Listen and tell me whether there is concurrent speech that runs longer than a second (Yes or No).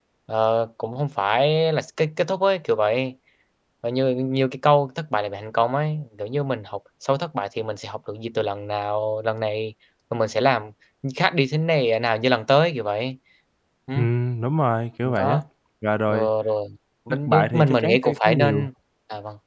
Yes